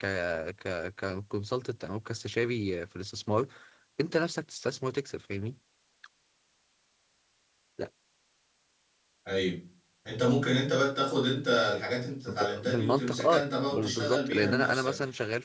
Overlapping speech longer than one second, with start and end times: 12.3-14.9

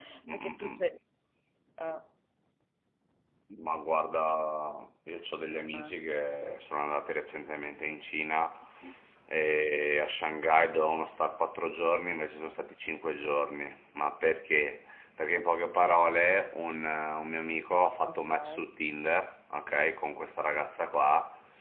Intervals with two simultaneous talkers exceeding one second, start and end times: none

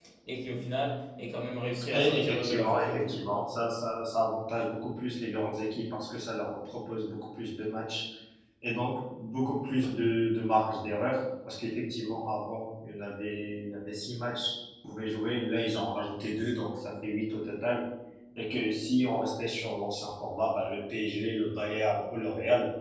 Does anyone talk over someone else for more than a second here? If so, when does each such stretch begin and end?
1.9-3.2

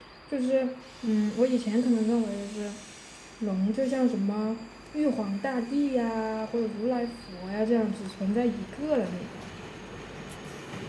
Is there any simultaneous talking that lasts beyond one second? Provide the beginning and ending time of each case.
none

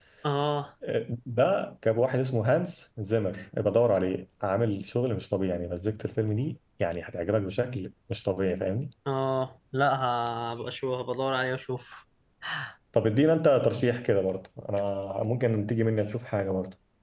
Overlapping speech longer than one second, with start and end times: none

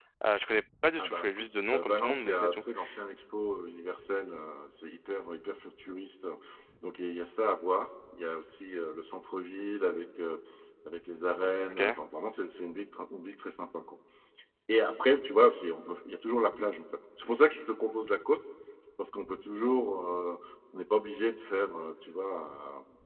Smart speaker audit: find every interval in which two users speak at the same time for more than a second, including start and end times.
1.0-2.6

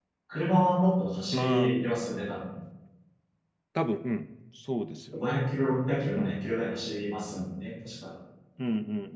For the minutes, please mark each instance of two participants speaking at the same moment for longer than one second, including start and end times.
none

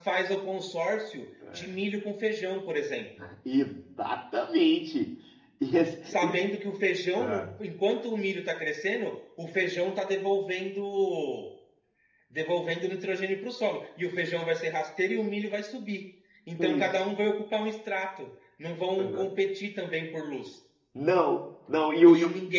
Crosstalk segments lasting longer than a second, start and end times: none

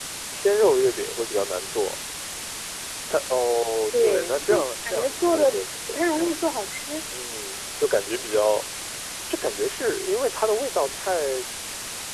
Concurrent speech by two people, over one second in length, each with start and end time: 3.9-5.6

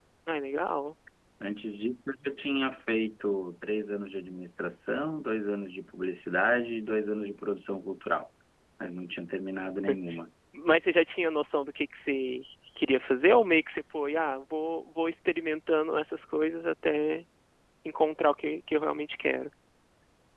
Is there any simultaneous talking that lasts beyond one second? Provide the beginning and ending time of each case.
none

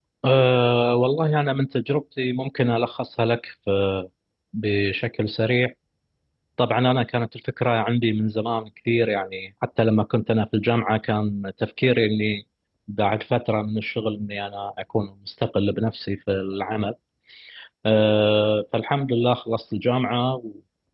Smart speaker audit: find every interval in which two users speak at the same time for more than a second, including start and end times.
none

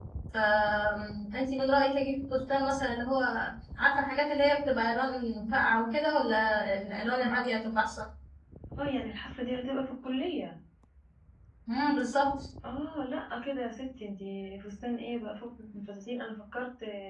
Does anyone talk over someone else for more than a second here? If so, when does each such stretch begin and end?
none

